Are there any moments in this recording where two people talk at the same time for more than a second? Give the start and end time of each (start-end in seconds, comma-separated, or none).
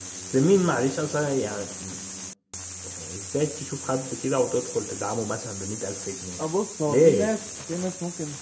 none